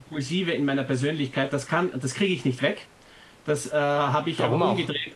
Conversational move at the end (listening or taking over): listening